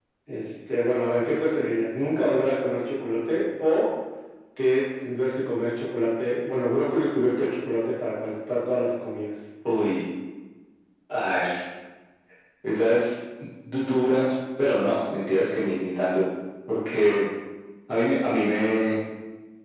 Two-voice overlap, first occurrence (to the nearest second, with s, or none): none